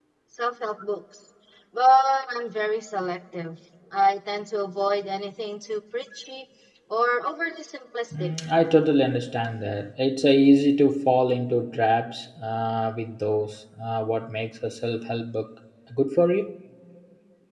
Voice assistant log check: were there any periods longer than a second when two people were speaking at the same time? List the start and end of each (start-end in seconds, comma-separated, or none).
none